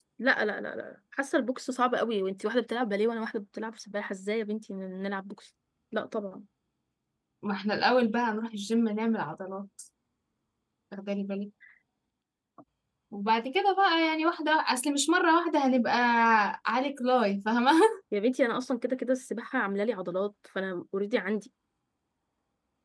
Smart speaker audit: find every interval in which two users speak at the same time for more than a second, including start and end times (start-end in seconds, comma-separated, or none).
none